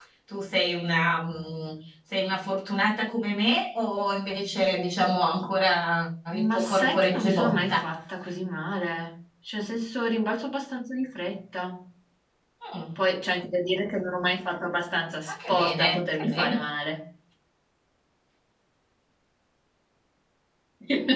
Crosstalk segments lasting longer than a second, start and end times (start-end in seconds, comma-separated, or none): 6.3-7.8, 15.3-16.6